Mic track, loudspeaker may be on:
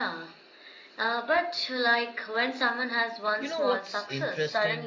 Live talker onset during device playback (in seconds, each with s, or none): 3.4 s